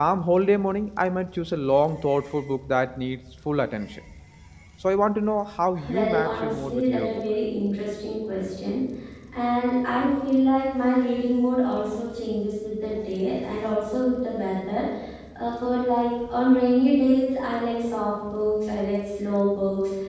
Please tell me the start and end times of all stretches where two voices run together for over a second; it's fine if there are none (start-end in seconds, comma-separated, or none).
5.8-7.2